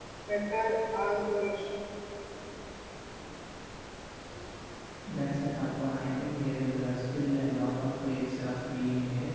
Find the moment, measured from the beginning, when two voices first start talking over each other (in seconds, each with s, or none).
none